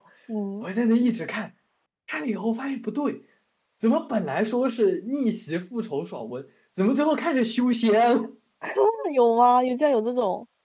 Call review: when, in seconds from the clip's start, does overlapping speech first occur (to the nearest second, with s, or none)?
none